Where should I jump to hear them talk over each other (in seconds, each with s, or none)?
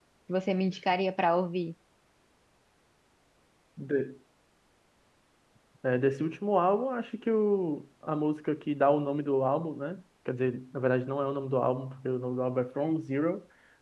none